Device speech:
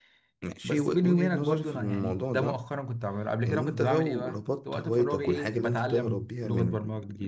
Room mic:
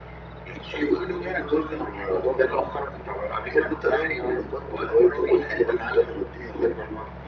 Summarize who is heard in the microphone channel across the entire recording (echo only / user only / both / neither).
echo only